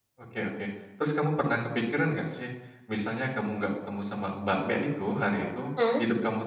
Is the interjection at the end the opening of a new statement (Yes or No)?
No